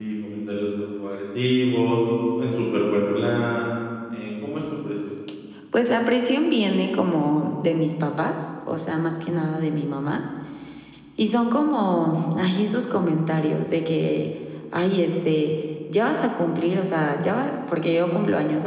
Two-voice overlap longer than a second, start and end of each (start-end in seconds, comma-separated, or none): none